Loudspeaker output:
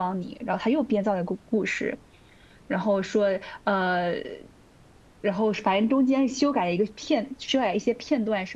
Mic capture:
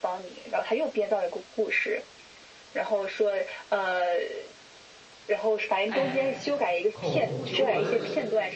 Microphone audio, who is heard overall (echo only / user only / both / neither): both